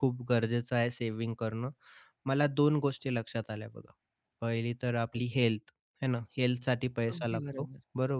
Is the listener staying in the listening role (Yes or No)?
Yes